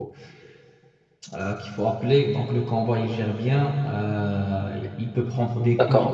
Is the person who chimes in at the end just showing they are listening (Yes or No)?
No